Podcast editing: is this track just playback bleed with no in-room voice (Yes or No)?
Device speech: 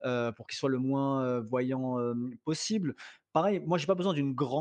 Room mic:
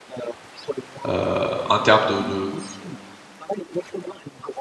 No